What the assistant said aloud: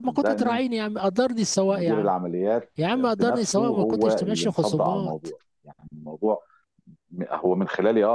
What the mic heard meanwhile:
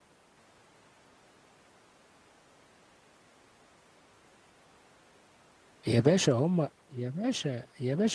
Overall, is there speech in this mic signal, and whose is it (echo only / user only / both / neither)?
user only